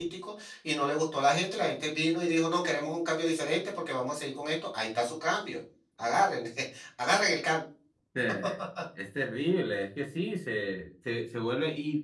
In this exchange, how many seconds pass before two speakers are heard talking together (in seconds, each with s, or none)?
none